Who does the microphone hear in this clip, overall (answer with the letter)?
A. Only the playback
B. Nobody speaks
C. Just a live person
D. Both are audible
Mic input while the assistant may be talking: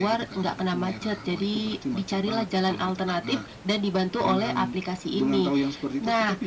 A